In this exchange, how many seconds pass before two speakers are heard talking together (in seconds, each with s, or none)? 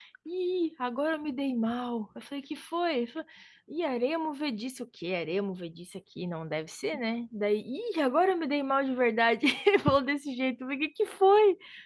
none